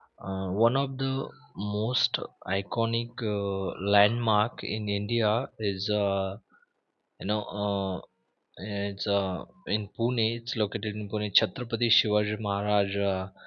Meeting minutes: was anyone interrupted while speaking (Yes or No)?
No